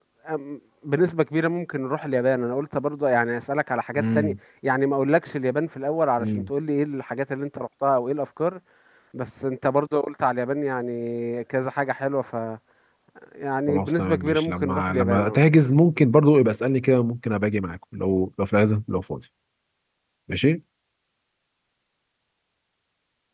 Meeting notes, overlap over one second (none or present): present